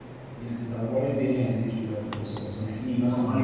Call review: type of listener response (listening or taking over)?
listening